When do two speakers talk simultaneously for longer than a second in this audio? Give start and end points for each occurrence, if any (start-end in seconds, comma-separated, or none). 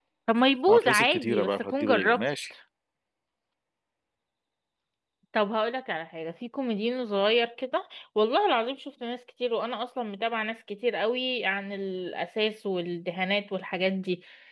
0.7-2.2